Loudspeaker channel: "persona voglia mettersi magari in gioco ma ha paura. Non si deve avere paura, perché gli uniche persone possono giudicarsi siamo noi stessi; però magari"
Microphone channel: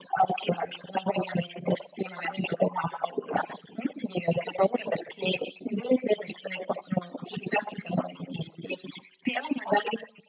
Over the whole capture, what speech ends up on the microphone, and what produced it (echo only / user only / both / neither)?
echo only